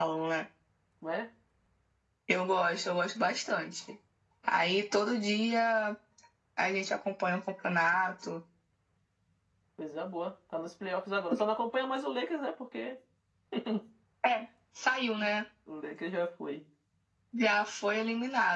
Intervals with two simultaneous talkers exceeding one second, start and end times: none

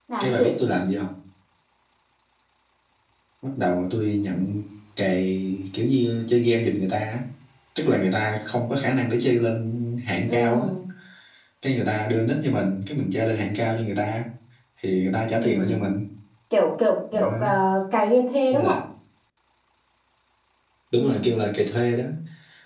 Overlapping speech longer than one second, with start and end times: none

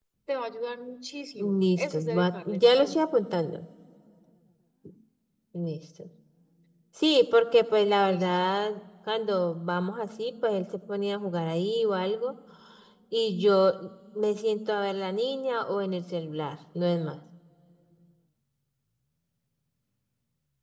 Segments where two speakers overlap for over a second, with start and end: 1.4-3.0

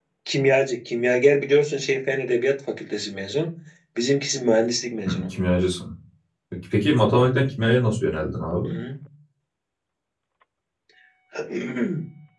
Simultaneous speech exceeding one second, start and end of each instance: none

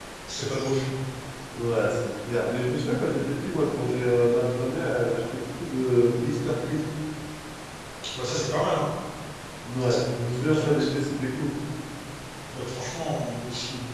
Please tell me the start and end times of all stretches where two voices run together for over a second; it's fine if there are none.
none

